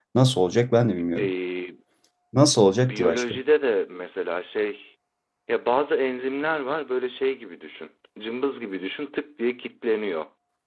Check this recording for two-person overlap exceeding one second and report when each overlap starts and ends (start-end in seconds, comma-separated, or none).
none